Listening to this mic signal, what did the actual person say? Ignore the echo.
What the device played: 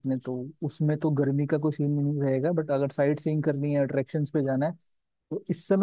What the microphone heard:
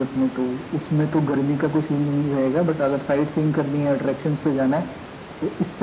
none

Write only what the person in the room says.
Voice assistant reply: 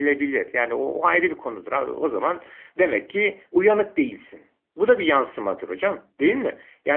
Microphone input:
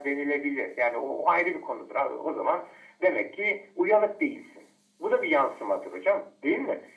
none

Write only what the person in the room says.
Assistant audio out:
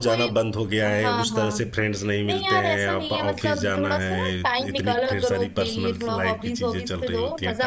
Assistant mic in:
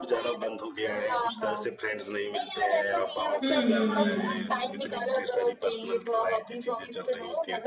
हम्म हम्म हम्म

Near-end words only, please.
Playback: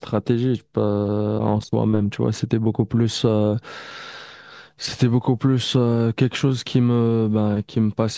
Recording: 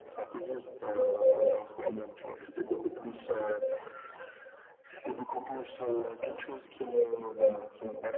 none

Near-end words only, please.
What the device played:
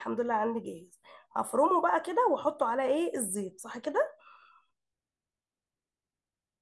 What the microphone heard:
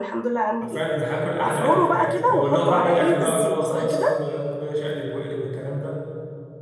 عارفين هاكل احلى اكل في حياتي لو اللي هو بعمل اكل بقى واللي هو خلاص يا عم يلا بينا شقلب واقلب والكلام ده

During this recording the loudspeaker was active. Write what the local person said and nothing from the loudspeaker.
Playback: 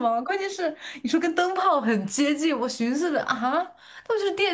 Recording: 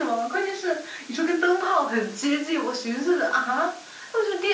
none

